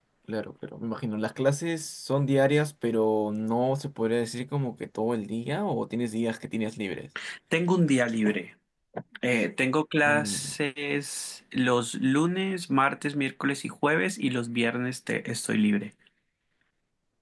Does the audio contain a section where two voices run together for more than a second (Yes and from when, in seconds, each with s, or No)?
No